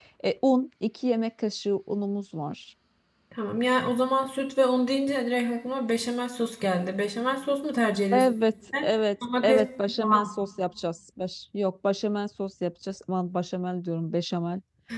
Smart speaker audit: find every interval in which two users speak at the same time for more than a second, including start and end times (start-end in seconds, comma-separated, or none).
none